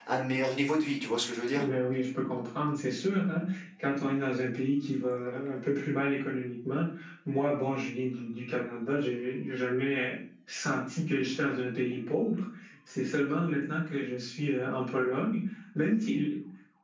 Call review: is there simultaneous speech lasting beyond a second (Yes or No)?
No